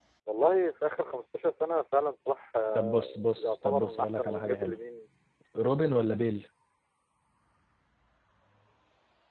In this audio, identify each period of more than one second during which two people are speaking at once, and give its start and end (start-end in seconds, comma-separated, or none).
2.8-4.8